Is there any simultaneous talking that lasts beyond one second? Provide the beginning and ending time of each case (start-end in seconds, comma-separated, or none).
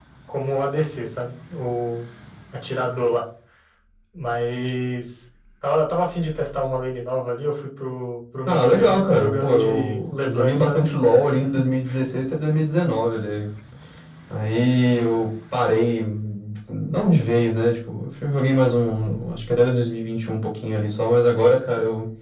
8.5-10.8